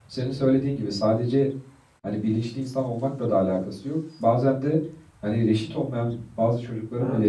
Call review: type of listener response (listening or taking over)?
listening